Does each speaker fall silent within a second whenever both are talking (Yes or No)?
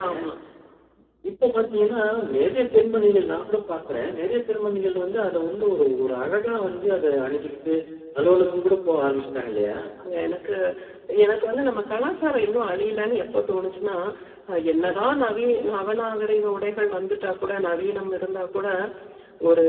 Yes